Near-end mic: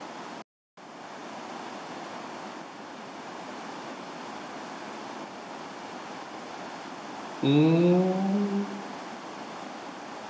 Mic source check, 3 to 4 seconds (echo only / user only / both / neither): neither